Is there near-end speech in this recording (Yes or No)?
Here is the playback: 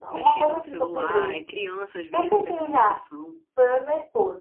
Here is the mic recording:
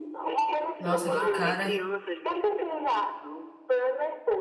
Yes